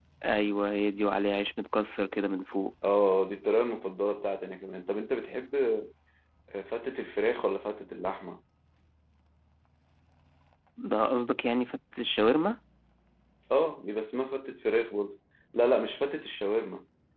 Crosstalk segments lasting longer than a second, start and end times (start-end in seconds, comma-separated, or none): none